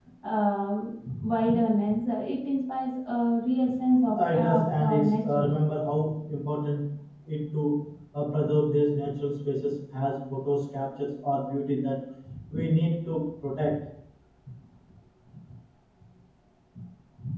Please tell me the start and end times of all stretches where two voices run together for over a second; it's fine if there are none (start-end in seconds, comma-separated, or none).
4.2-5.5